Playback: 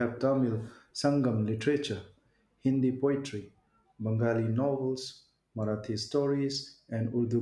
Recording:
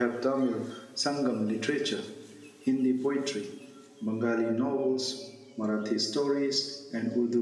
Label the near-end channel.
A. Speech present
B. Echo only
B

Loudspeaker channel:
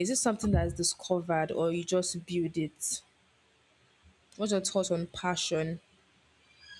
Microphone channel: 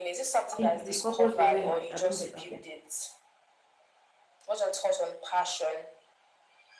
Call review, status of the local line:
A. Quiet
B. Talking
B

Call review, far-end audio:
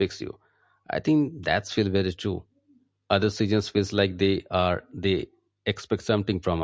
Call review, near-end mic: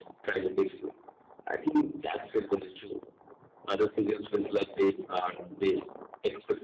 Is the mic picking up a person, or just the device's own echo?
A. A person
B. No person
B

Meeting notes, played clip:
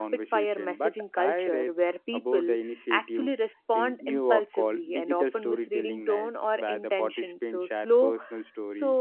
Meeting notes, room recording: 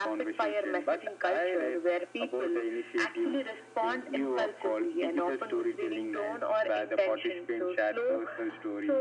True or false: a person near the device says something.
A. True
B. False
B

